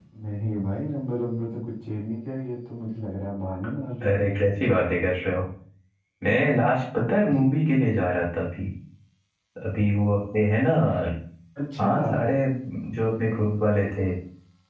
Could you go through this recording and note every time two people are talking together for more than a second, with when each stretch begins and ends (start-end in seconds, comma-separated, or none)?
none